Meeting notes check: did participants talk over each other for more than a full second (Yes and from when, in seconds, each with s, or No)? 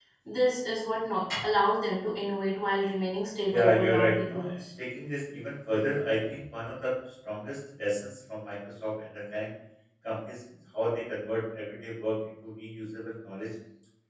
Yes, from 3.5 s